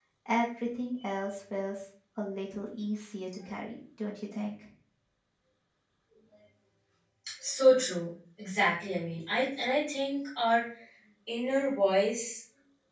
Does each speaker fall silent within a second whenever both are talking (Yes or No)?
Yes